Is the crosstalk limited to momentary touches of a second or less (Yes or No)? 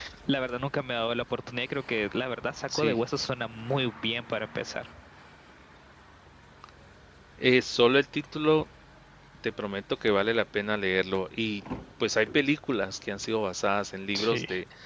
Yes